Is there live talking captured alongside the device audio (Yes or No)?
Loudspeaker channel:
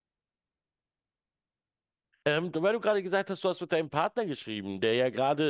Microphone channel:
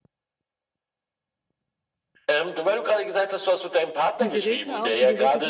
Yes